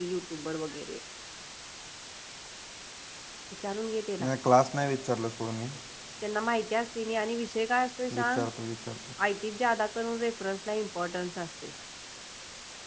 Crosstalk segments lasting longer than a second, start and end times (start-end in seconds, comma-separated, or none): none